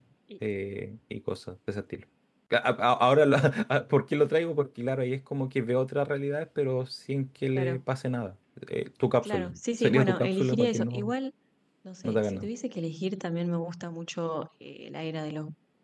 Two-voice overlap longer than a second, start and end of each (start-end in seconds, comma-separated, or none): 9.2-11.1